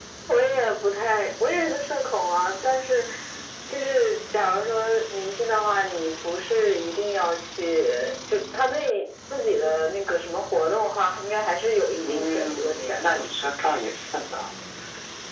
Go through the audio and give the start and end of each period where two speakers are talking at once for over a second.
12.0-13.2

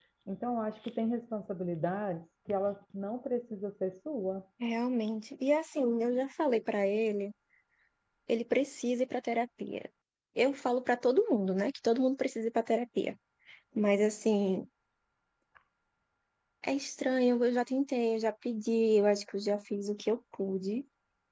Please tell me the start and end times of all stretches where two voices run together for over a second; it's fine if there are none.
none

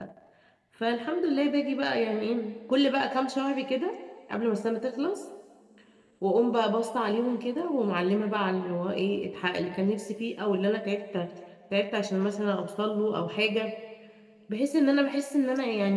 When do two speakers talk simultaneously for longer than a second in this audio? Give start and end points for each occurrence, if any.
none

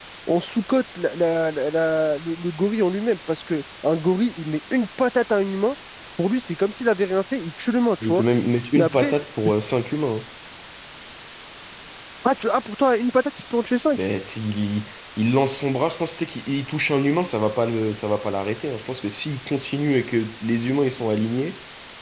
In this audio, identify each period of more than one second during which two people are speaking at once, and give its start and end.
none

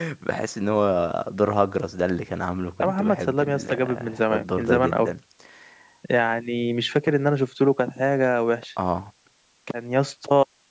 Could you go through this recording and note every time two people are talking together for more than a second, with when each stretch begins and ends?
2.8-5.1

